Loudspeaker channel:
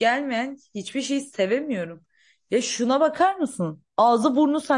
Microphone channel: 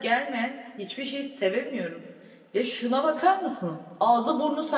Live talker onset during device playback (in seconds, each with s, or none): none